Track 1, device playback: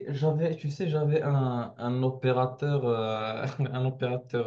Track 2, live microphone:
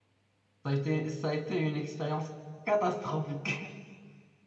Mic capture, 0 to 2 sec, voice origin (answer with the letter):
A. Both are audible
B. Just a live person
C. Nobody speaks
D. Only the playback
B